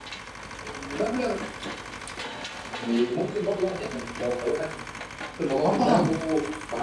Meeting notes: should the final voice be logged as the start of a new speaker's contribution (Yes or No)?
No